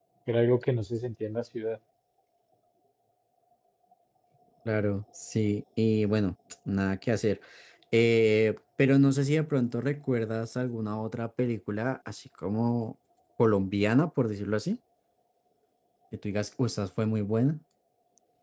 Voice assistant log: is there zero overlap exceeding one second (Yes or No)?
Yes